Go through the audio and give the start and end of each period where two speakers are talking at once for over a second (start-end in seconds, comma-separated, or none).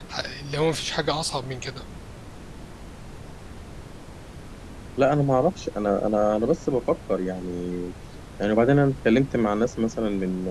none